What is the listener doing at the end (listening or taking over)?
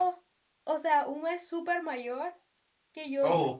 listening